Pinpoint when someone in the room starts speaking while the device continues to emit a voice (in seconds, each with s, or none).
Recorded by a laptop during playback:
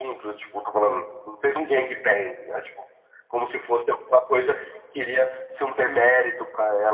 none